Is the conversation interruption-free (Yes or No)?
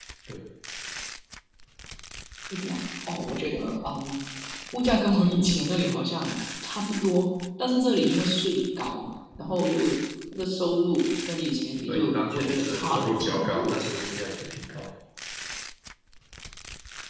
No